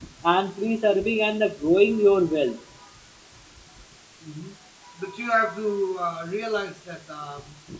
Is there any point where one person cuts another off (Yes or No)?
No